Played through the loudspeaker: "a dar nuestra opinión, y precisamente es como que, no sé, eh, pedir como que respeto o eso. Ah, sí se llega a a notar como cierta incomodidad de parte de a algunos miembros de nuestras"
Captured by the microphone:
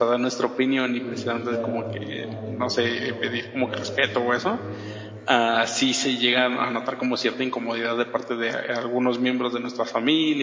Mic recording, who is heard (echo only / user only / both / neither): both